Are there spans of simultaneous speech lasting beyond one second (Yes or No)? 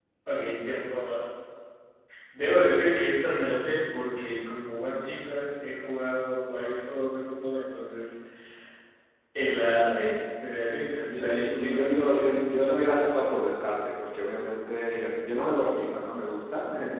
Yes